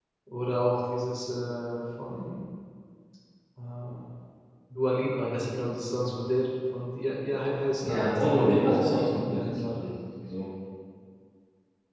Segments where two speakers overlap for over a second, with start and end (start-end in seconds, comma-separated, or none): 7.8-9.9